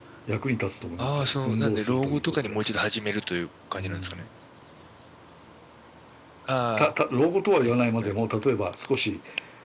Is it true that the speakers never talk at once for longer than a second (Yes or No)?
No